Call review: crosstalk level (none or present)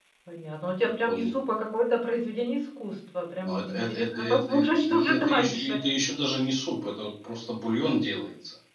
present